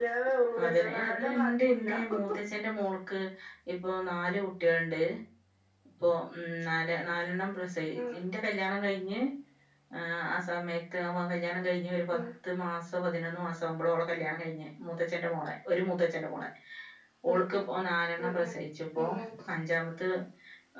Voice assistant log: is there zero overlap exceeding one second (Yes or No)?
No